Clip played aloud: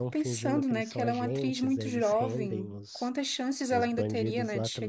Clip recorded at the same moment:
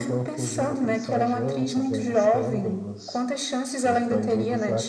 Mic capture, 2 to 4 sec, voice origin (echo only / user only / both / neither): echo only